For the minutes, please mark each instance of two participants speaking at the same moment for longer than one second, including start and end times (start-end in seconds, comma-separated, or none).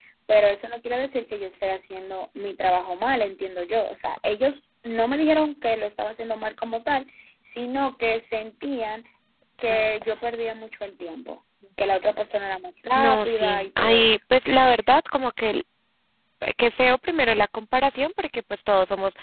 12.9-14.2